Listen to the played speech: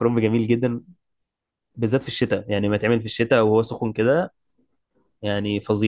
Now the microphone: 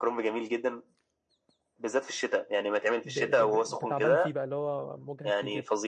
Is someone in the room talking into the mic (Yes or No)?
Yes